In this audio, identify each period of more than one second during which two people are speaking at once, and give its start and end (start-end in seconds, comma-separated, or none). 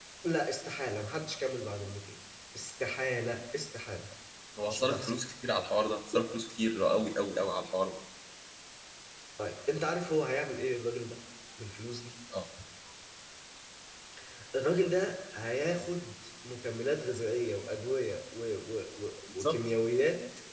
none